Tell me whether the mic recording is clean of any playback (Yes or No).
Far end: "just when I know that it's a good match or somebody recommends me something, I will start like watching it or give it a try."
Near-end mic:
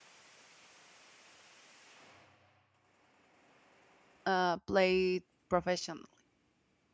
Yes